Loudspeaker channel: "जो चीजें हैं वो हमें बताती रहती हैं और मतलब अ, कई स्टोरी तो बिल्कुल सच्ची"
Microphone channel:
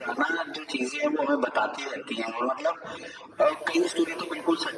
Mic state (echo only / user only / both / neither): echo only